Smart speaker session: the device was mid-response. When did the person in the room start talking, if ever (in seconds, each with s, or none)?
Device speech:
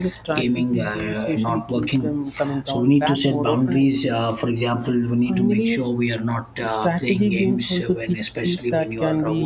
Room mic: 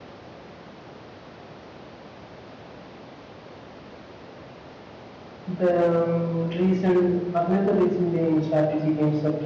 5.5 s